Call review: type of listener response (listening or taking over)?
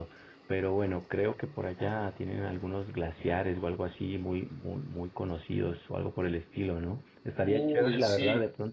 listening